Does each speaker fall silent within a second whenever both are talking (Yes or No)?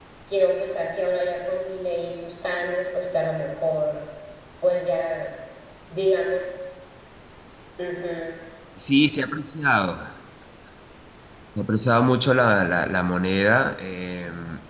Yes